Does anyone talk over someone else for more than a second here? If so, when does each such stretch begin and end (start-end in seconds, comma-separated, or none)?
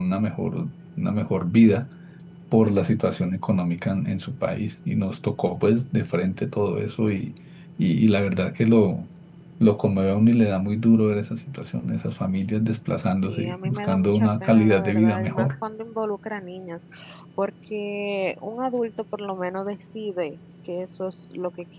13.2-15.5